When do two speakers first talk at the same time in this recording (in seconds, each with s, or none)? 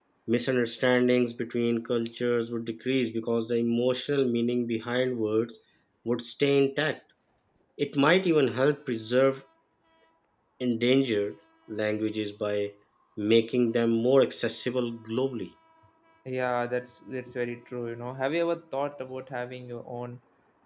none